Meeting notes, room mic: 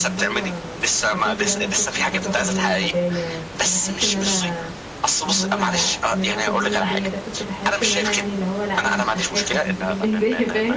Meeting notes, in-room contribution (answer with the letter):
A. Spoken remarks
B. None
A